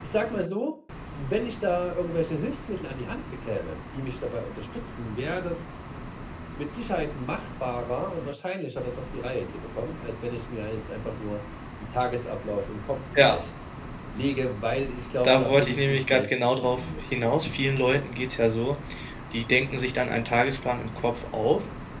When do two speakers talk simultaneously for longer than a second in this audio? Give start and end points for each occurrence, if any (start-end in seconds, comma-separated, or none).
15.2-17.4